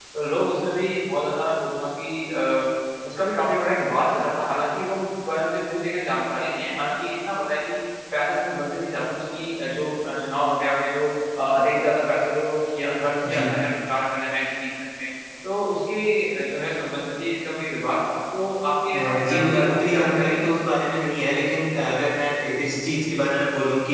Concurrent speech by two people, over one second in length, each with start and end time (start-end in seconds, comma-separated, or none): 18.9-20.4